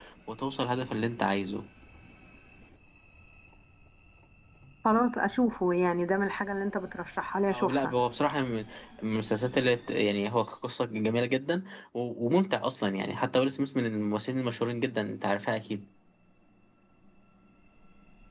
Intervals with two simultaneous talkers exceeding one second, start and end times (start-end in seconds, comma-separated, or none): none